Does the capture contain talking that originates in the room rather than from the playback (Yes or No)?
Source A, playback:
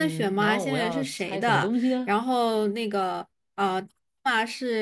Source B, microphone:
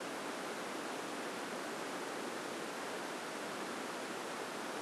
No